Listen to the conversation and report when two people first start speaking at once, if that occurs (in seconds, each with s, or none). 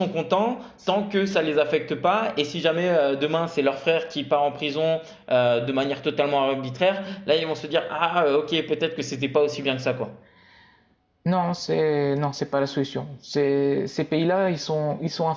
none